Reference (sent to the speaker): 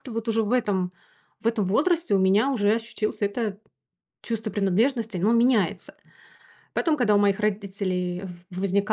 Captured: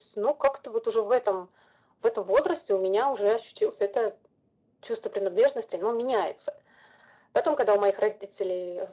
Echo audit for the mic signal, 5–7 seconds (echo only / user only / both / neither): echo only